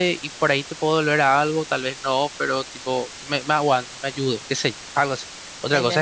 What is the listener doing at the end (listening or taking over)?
listening